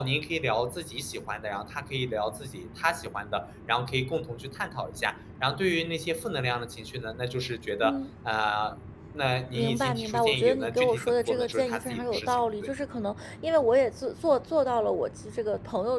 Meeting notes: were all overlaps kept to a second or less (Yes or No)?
No